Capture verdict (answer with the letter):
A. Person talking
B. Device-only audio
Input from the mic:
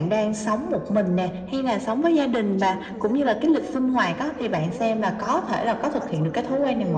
A